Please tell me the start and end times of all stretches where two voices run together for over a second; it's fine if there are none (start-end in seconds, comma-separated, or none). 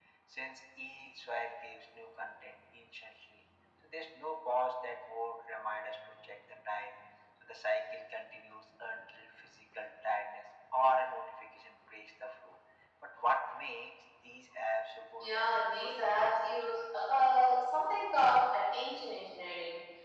15.2-16.8